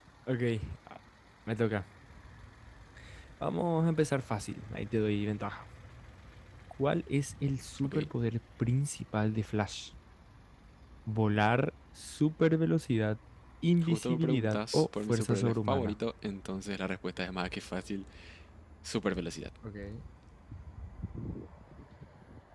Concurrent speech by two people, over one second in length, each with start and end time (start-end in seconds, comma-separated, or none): 13.8-16.0